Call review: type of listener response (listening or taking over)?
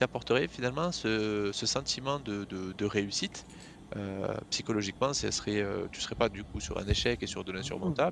listening